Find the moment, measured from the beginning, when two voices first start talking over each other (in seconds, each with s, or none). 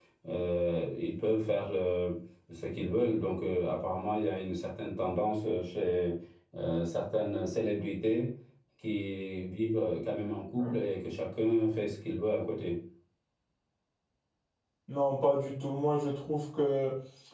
none